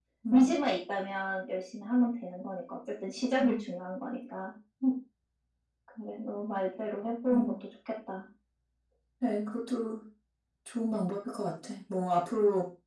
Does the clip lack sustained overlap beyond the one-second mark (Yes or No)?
Yes